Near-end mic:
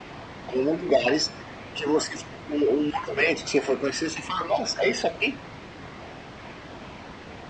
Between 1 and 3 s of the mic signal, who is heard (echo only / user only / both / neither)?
echo only